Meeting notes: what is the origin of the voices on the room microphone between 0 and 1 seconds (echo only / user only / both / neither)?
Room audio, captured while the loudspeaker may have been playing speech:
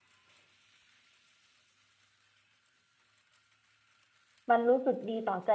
neither